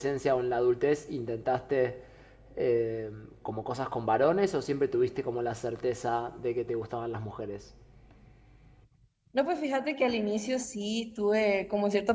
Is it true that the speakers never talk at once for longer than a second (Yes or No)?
Yes